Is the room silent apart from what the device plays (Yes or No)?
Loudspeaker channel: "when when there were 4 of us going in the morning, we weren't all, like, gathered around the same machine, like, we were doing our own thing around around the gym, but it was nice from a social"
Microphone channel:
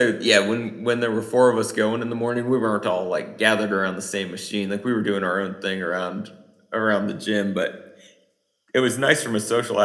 Yes